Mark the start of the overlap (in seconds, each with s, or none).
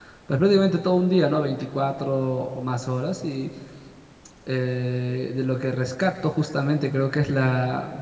none